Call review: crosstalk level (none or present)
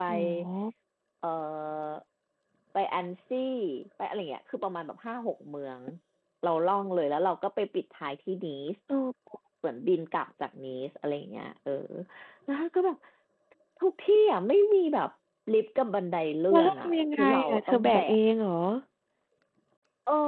present